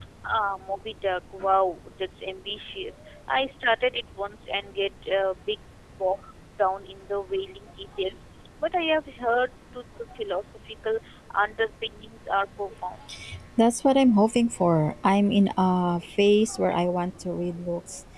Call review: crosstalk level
none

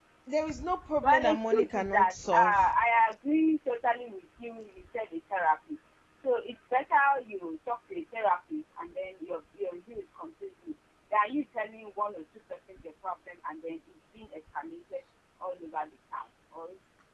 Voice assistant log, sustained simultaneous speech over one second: present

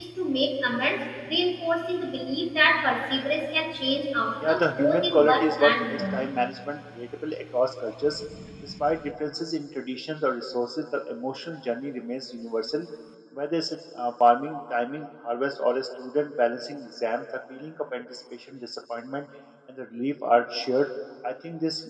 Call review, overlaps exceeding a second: present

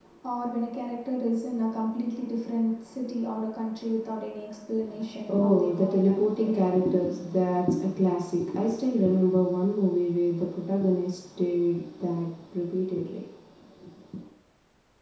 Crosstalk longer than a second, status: present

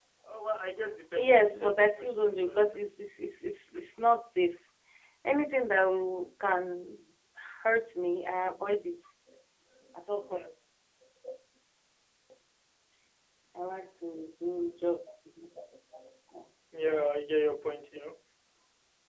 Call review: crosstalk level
present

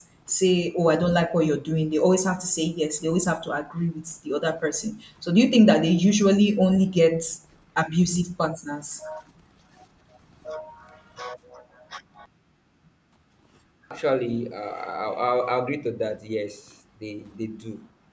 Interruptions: none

